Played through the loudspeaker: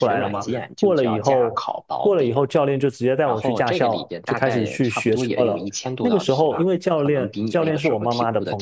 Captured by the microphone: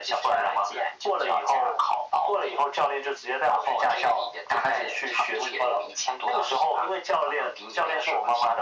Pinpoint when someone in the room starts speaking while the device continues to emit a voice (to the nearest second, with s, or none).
none